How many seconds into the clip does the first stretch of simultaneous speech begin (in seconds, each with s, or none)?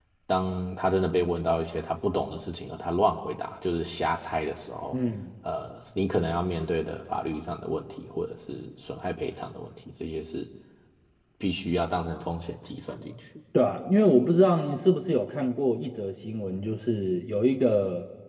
none